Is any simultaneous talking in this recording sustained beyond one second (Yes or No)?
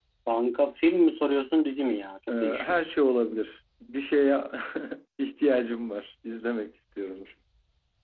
No